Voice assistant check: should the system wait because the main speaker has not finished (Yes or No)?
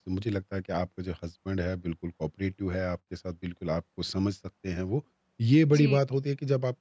Yes